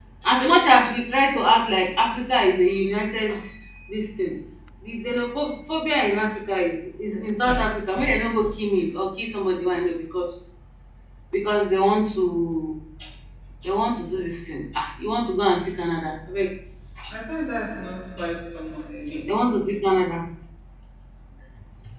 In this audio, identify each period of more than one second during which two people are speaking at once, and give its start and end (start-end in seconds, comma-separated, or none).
none